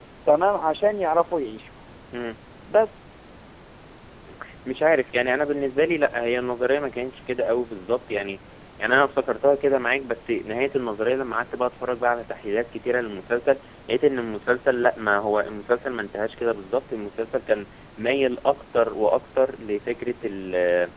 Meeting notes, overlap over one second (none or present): none